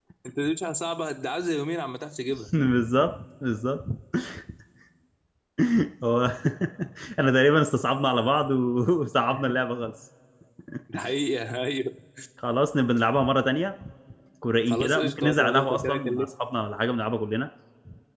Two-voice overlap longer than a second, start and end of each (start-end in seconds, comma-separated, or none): 14.7-16.2